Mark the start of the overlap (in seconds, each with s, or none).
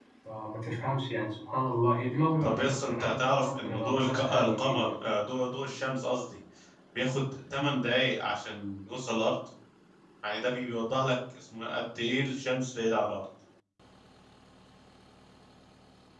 2.4 s